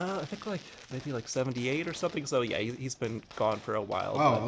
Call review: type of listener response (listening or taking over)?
taking over